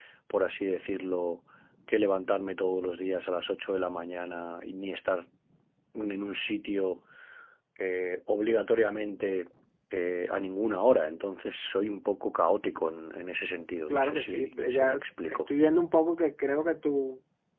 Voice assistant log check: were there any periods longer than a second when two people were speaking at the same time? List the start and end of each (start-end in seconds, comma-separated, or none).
13.9-15.4